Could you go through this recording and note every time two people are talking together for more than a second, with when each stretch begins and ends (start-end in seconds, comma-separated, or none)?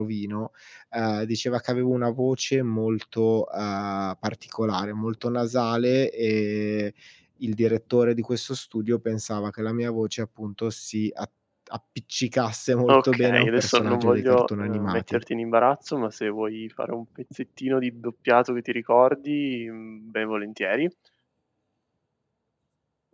12.9-15.2